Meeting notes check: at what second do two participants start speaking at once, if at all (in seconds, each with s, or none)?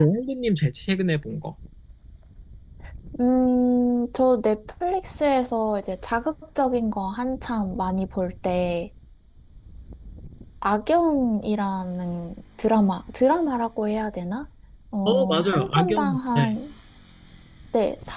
15.1 s